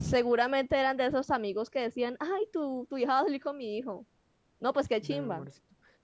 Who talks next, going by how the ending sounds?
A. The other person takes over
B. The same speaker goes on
A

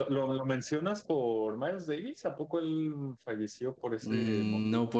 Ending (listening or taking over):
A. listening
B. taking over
B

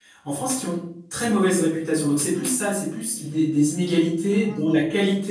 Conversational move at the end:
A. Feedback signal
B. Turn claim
A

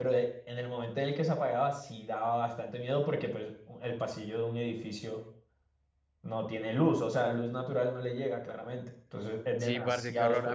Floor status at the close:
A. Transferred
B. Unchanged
A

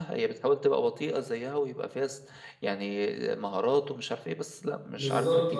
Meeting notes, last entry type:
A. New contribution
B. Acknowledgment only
A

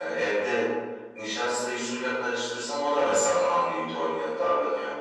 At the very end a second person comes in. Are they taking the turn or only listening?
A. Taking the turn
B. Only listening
A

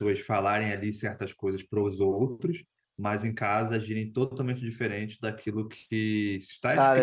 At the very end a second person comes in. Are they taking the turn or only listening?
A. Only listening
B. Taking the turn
B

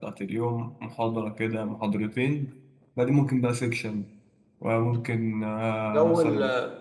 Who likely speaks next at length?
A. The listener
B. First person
A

